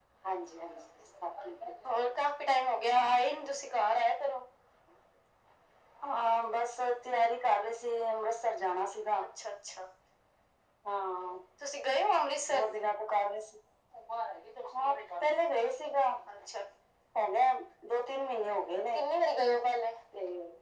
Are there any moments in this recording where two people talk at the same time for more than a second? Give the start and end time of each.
none

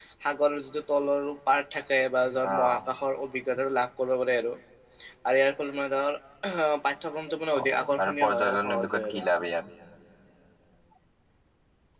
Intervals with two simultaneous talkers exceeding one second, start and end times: 7.6-9.2

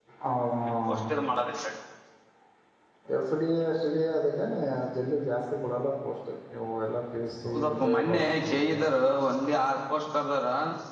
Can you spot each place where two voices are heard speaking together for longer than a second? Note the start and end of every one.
7.5-8.8

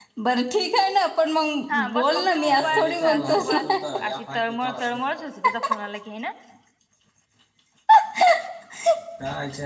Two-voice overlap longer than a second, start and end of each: 1.7-3.5

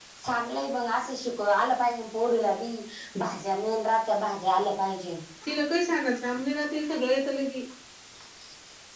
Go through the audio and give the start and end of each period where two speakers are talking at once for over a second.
none

